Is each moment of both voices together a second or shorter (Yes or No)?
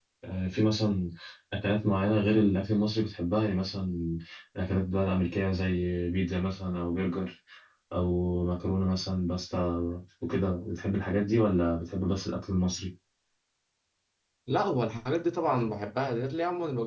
Yes